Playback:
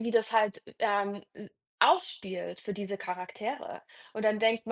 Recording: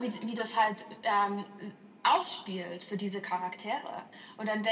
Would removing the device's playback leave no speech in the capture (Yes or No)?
Yes